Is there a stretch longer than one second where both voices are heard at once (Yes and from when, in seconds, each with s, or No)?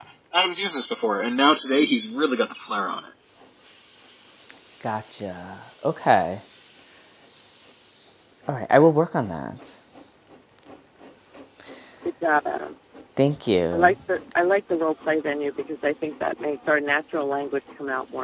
No